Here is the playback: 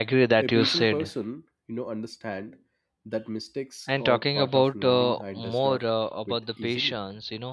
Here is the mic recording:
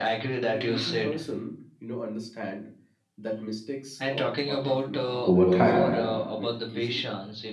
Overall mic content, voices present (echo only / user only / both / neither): both